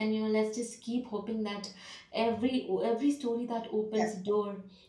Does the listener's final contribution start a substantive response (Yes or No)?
No